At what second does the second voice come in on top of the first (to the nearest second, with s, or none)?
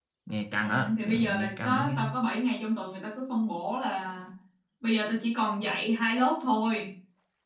1 s